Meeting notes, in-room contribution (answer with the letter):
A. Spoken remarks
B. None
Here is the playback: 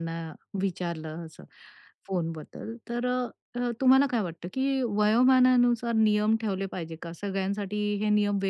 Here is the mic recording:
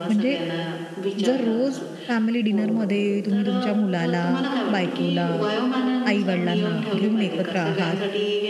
A